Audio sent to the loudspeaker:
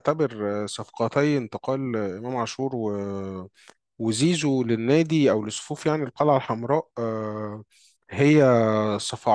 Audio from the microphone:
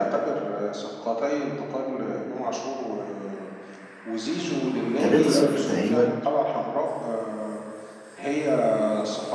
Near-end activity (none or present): present